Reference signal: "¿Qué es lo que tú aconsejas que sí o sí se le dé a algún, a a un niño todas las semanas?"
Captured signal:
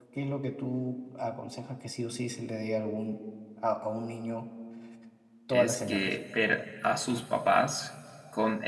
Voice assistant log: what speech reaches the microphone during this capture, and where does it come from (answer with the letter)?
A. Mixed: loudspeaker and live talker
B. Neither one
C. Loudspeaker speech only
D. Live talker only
A